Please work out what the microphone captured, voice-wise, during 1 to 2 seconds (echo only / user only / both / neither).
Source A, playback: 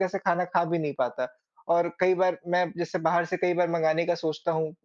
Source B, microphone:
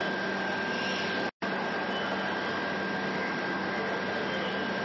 neither